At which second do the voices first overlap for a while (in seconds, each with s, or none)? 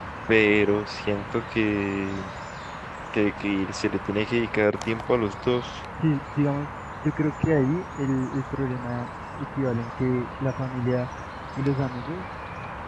none